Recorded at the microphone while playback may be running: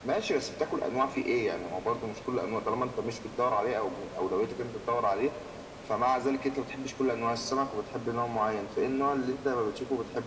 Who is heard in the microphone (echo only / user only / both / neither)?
echo only